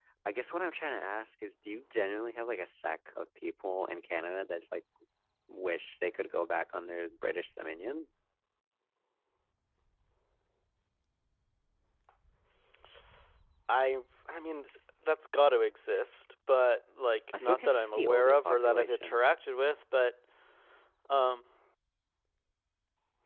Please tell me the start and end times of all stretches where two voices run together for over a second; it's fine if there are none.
17.4-19.2

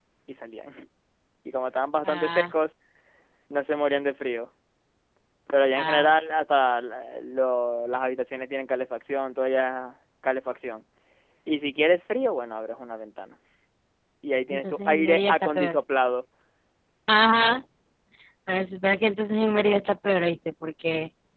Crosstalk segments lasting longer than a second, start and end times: 14.5-15.8

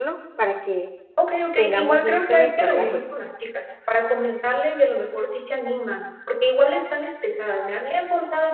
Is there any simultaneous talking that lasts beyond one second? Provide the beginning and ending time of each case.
1.6-3.0

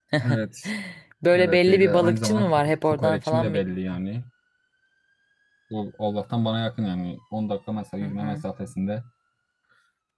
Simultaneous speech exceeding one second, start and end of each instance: 1.4-3.8

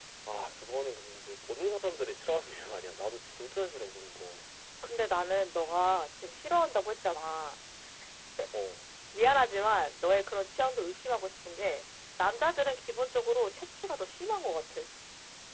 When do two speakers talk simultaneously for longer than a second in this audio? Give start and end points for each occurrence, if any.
none

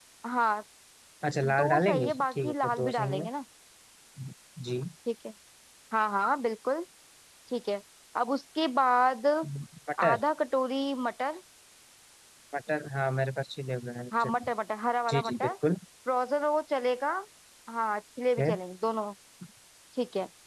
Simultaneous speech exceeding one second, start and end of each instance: 1.4-3.3

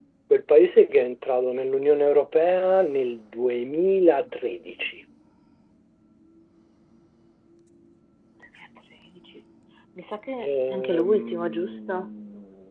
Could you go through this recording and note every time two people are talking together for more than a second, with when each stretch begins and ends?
10.4-12.1

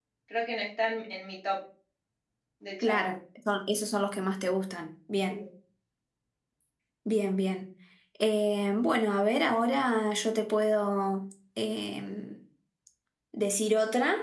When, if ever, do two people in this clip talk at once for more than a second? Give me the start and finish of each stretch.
none

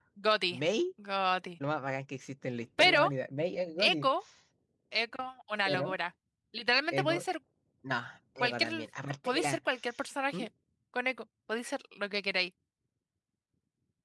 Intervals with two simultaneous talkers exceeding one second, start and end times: none

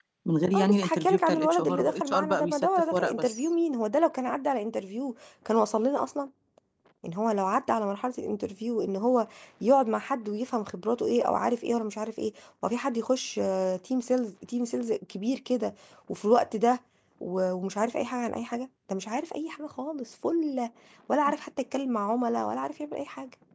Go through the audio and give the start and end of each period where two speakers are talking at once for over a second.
0.5-3.5

